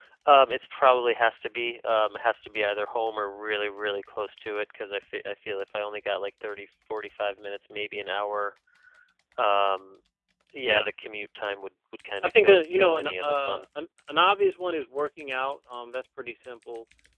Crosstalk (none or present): present